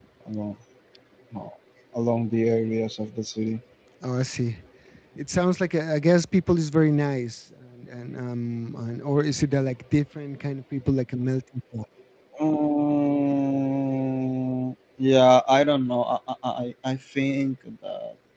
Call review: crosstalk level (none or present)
none